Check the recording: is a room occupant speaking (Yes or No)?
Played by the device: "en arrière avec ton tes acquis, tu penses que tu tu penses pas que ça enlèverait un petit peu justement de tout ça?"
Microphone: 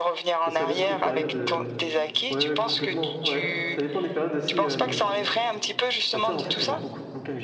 Yes